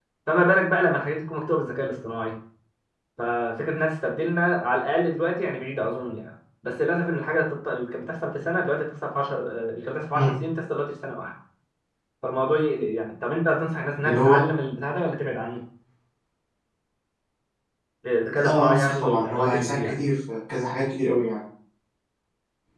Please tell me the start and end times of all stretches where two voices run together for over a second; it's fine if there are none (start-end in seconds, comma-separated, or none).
18.4-19.9